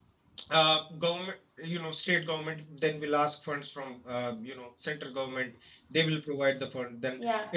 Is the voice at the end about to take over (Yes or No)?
No